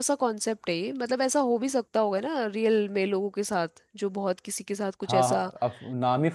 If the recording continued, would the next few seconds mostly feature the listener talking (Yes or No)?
Yes